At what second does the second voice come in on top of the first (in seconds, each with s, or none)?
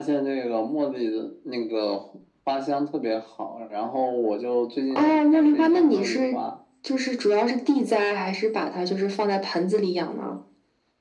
4.9 s